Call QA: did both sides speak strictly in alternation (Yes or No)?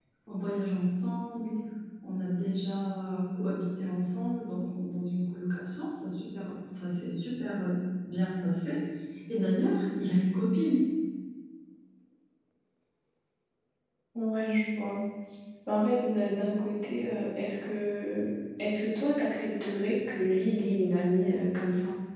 Yes